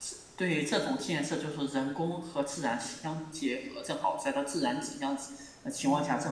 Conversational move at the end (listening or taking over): listening